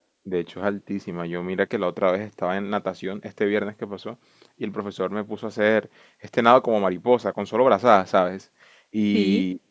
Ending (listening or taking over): listening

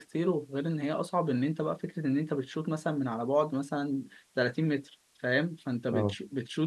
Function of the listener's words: listening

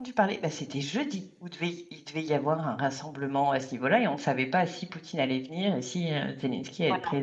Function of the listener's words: listening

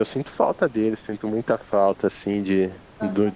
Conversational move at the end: listening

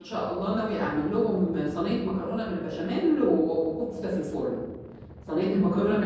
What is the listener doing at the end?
listening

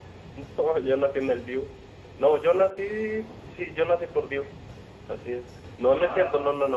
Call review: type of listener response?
listening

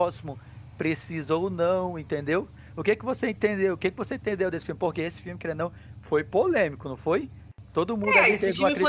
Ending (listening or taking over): taking over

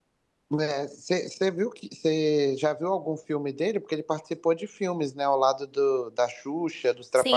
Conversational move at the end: taking over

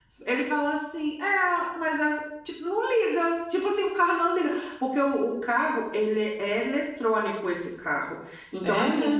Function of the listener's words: listening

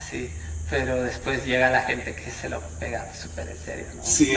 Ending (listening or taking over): taking over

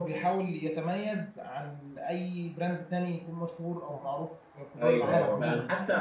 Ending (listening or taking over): taking over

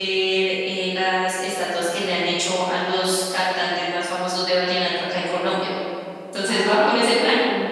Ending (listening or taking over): taking over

